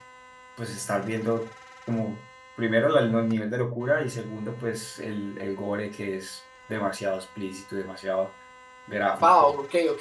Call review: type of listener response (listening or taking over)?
taking over